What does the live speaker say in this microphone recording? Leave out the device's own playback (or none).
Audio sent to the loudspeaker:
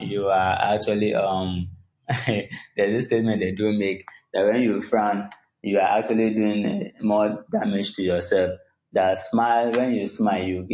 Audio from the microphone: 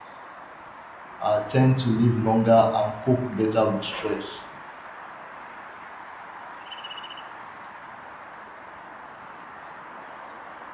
uh, tend to live longer and cope better with stress